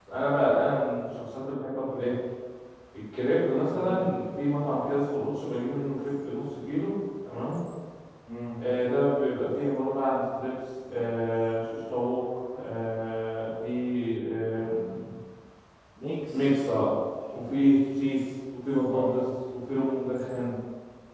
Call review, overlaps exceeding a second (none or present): none